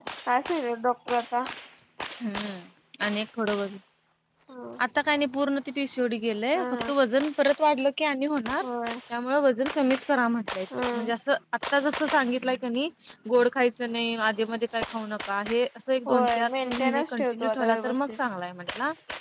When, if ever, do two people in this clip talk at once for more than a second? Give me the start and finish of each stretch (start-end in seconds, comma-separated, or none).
16.1-18.1